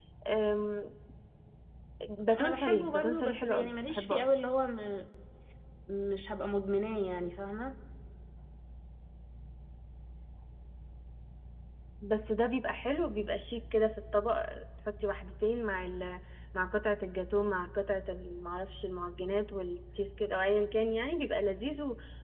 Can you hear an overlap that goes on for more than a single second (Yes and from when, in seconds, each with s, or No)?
Yes, from 2.2 s